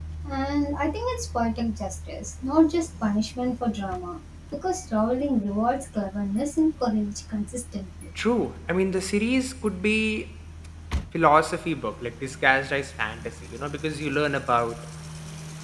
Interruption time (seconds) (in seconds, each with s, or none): none